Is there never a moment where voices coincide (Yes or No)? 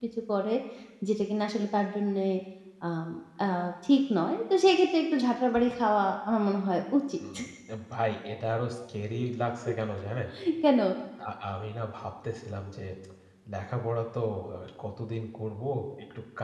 Yes